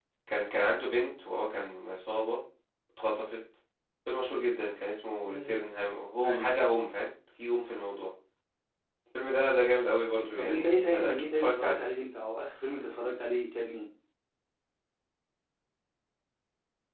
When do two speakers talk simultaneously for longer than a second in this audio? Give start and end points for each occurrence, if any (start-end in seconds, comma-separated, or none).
10.4-11.8